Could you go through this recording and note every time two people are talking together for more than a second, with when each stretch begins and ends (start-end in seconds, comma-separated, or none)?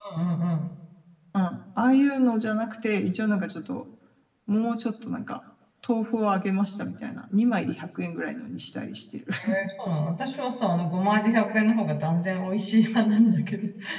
none